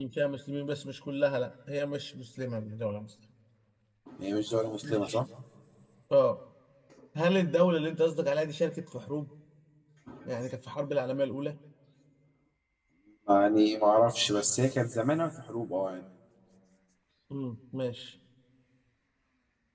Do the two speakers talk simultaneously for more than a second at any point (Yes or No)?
No